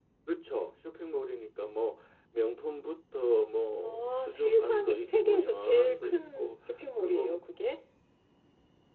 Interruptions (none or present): present